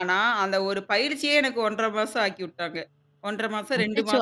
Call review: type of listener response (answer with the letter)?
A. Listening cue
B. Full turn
B